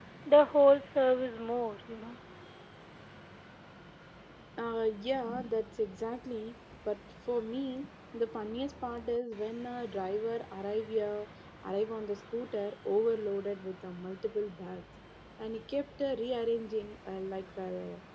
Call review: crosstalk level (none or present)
none